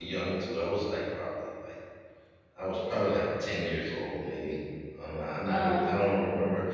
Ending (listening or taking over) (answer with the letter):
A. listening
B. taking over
A